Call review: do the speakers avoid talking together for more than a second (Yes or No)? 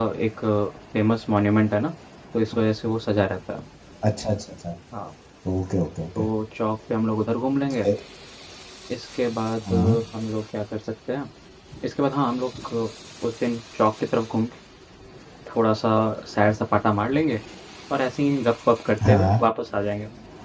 Yes